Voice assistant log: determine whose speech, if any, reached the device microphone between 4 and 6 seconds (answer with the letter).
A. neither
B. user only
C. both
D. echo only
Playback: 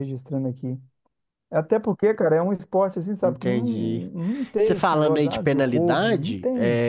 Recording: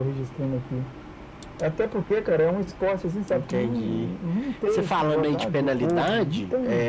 D